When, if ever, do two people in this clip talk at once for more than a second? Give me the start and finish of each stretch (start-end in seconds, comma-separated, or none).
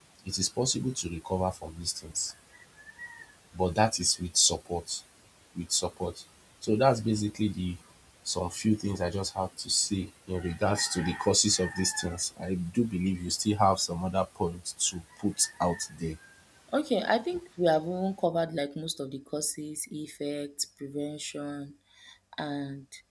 none